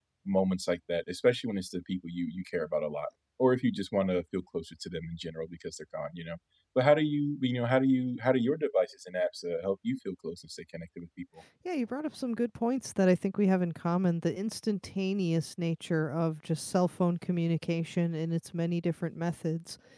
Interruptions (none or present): none